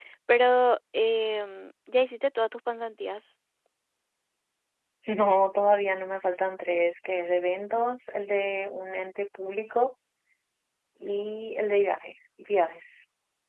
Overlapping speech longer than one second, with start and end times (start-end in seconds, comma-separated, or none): none